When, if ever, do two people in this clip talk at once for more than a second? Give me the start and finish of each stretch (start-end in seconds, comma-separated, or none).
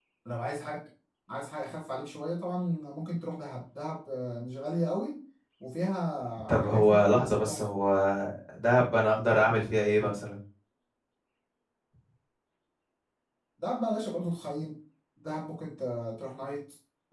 6.5-7.7